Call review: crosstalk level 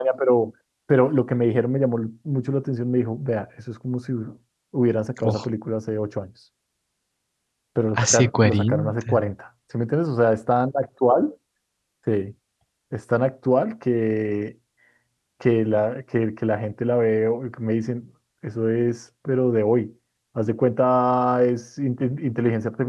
present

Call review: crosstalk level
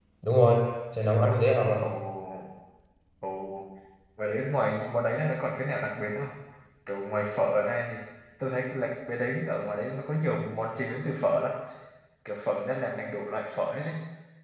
none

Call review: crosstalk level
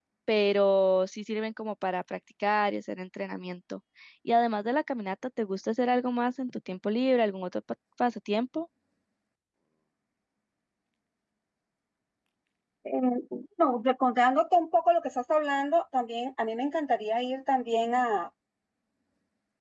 none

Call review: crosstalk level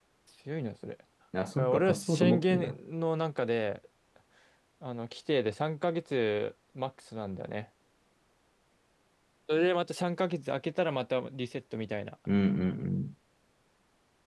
present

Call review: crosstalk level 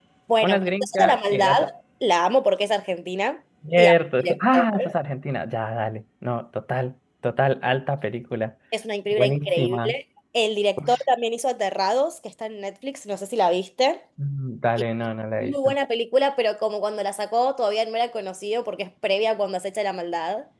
present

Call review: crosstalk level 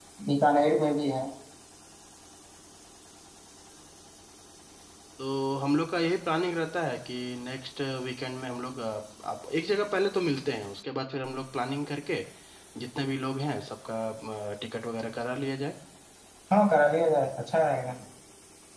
none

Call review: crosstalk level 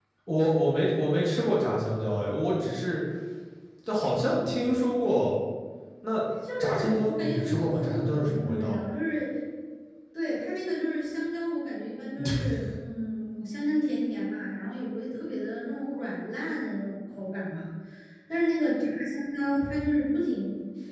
present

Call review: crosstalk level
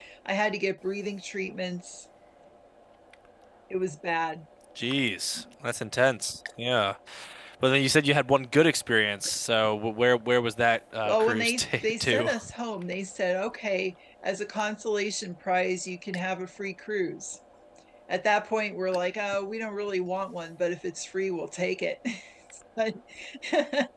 present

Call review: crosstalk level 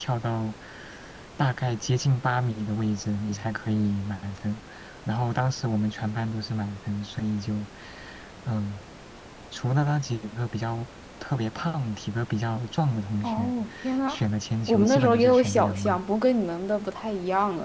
present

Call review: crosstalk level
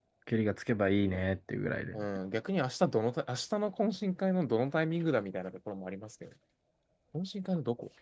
none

